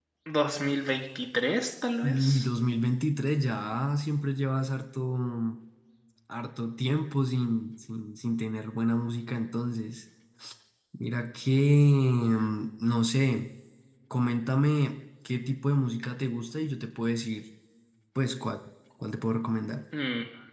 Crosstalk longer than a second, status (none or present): none